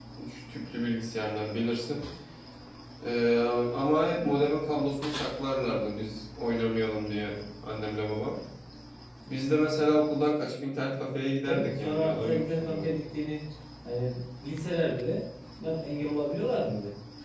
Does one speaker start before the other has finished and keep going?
Yes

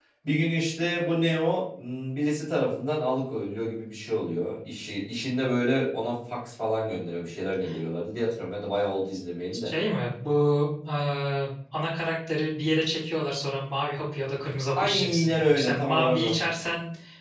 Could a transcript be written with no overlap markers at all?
No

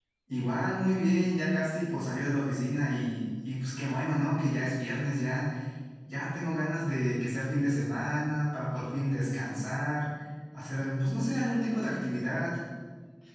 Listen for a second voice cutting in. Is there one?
No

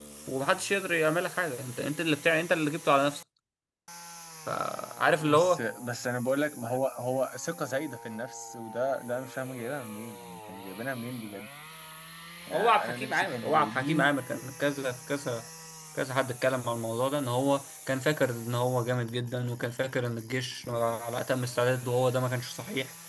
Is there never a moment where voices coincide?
No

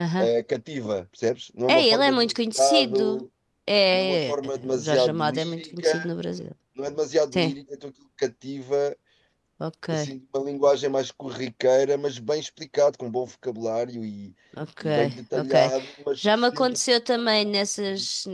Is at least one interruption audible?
Yes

